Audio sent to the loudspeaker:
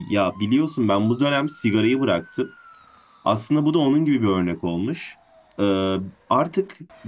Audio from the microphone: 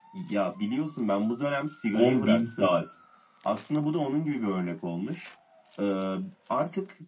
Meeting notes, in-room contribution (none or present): present